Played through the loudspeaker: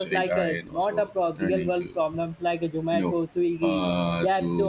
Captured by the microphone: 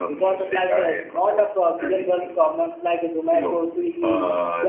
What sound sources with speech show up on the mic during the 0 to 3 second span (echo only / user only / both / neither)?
echo only